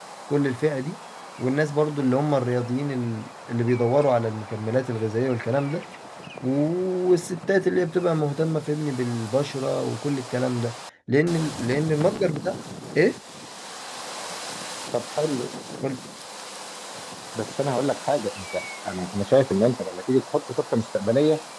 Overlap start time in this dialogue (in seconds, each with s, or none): none